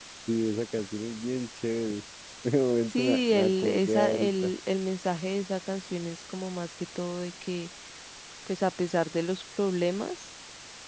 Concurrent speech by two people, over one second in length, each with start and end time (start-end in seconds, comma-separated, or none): 2.9-4.5